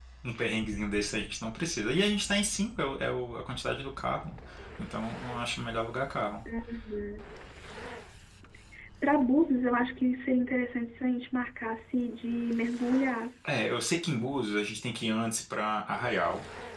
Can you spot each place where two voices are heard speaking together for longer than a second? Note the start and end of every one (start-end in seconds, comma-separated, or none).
none